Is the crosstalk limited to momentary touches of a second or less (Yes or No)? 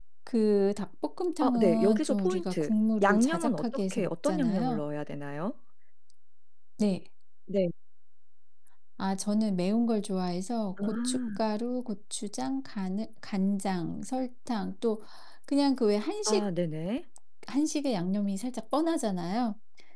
No